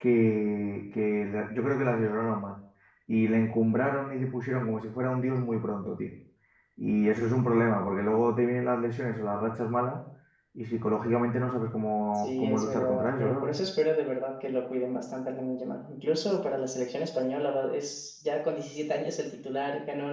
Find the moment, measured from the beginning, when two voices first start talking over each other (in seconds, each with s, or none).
12.2 s